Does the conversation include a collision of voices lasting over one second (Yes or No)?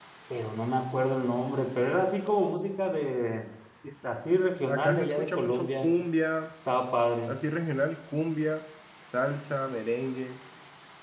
Yes